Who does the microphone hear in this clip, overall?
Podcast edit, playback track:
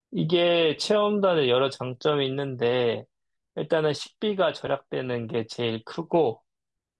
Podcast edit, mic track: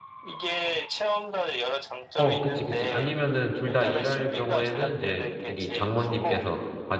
both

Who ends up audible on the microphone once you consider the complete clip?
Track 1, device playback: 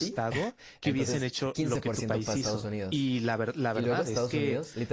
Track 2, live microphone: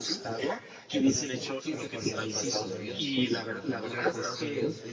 both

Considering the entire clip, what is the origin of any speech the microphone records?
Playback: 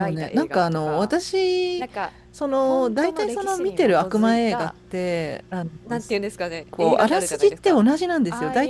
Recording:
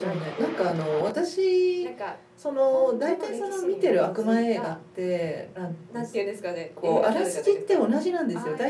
echo only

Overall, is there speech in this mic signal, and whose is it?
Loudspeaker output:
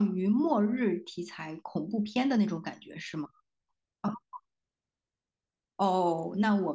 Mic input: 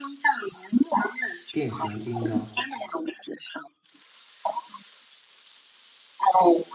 both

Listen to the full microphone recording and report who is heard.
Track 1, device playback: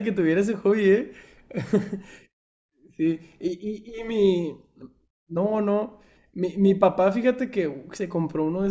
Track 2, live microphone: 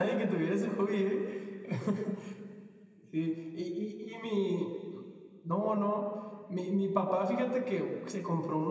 echo only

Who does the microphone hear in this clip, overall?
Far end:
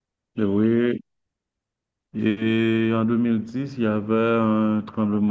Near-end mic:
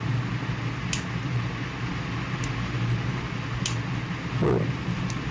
user only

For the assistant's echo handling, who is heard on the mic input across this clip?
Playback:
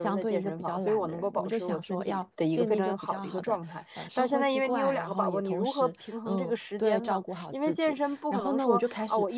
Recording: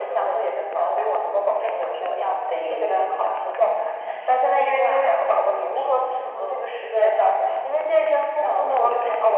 echo only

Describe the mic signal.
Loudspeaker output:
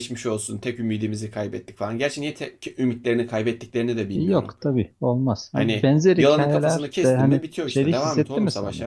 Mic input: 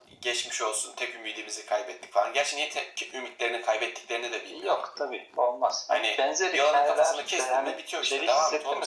echo only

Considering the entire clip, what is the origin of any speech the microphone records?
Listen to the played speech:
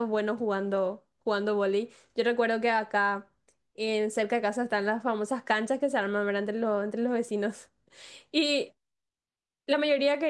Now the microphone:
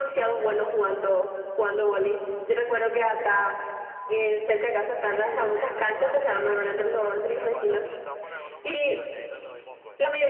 both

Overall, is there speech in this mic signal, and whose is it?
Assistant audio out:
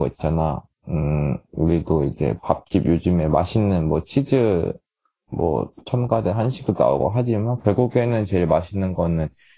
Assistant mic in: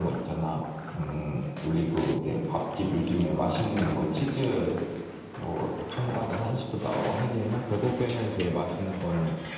echo only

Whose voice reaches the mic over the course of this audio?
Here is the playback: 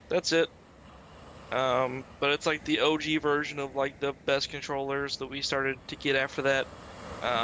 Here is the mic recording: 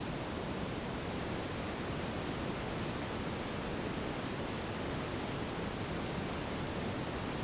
neither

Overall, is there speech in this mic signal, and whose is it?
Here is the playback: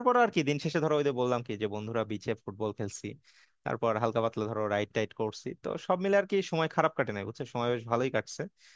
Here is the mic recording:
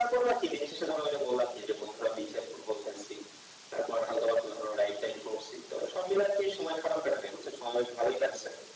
echo only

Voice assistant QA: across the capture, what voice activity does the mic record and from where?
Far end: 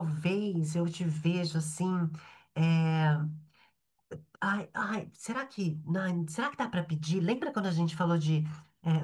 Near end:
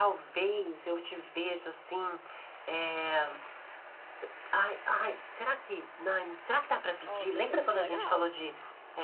both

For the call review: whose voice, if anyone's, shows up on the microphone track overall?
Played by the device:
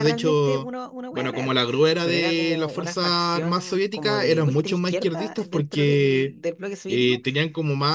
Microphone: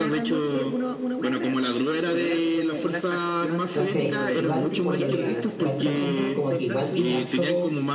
both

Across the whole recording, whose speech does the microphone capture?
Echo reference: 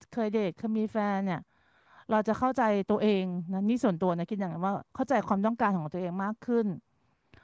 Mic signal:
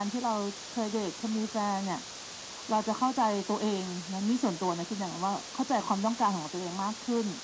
echo only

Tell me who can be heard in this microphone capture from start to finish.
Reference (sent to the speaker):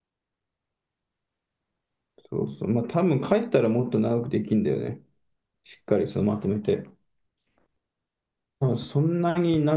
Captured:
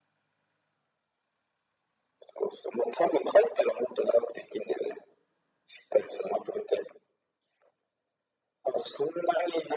echo only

